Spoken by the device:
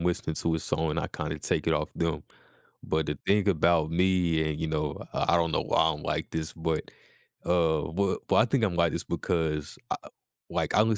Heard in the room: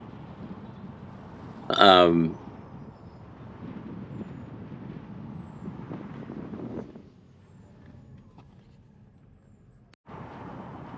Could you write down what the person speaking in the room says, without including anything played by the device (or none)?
Um,